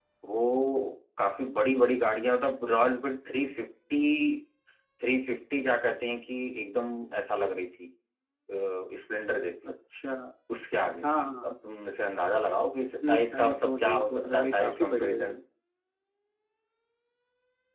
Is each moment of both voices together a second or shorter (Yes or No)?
No